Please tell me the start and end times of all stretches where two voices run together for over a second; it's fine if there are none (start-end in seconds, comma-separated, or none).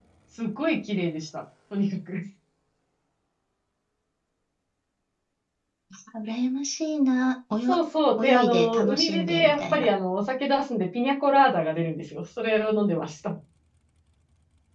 8.2-9.9